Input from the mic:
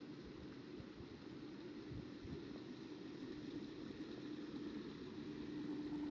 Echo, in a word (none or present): none